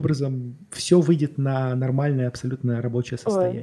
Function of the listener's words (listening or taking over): taking over